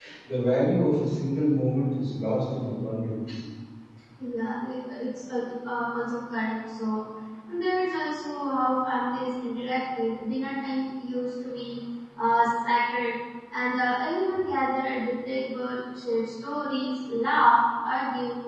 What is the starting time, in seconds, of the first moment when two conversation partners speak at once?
none

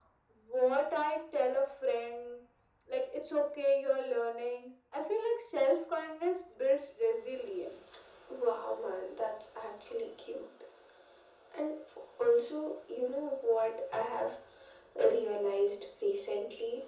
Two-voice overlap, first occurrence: none

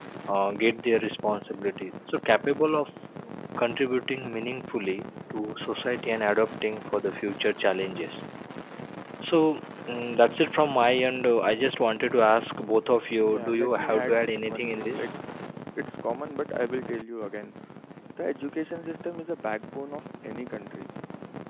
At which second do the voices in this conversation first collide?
13.2 s

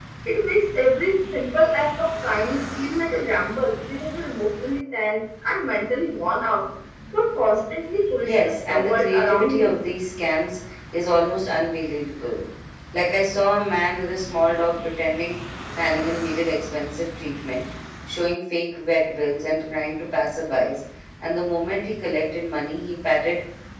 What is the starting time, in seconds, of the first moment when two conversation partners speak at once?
8.2 s

